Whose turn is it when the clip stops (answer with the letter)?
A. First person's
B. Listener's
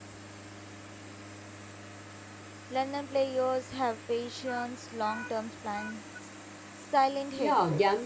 B